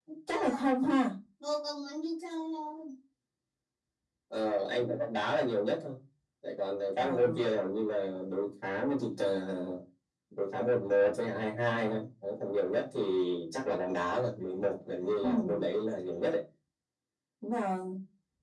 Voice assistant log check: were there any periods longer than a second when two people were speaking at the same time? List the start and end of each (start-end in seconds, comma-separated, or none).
none